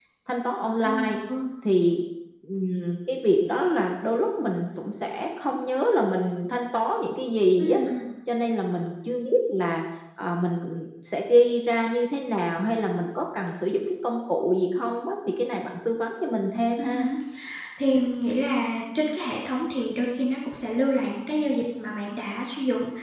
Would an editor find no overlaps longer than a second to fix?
Yes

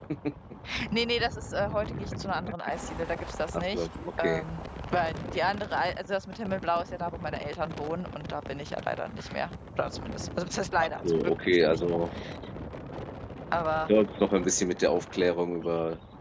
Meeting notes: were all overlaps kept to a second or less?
No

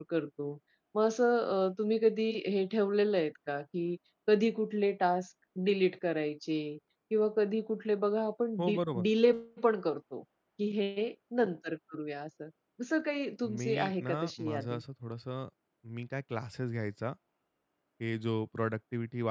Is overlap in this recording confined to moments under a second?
No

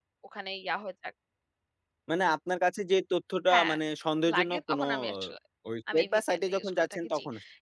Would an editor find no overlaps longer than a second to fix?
No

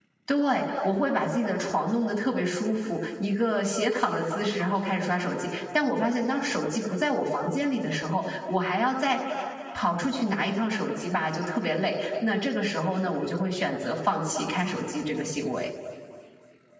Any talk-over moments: No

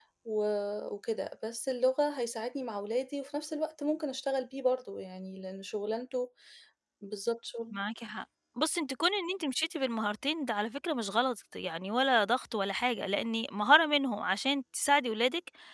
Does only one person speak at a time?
Yes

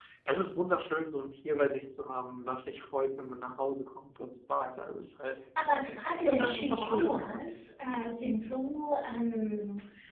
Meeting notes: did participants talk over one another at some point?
Yes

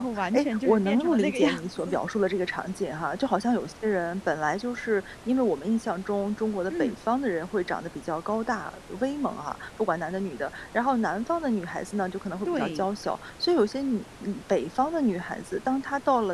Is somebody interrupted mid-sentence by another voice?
Yes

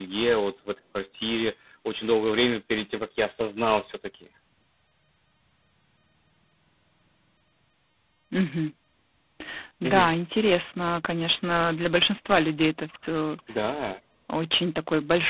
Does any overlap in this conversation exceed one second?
No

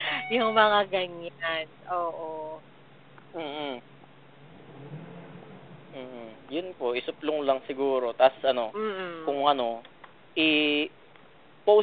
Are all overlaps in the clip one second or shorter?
Yes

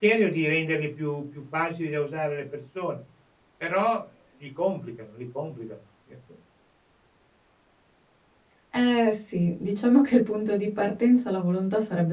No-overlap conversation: Yes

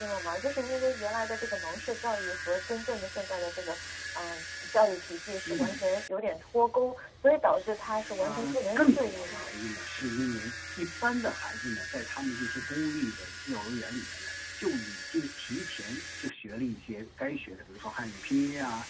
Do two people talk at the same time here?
Yes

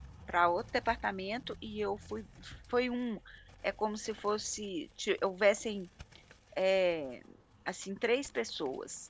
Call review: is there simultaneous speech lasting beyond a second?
No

